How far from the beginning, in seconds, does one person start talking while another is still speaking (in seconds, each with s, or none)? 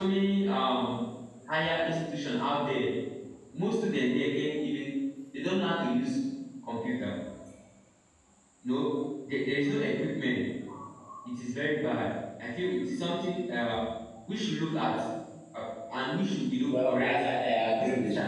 16.6 s